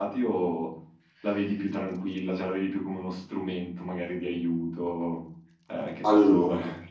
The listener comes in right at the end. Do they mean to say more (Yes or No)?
Yes